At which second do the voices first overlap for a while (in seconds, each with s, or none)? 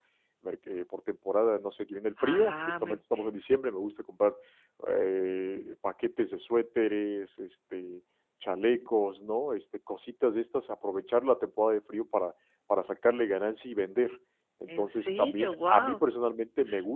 2.2 s